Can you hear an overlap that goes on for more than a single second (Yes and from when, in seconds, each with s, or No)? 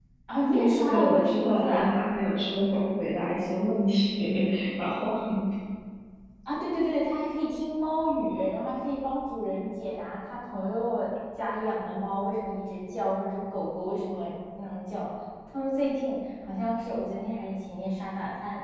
Yes, from 0.5 s